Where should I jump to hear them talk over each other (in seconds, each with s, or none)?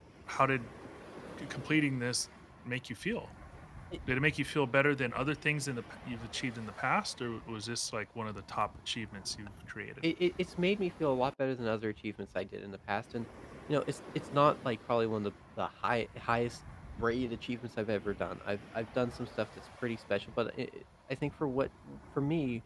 none